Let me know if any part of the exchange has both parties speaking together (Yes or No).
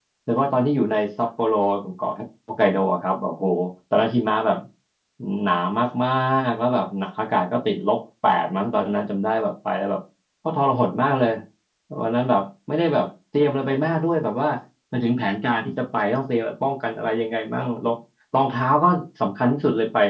No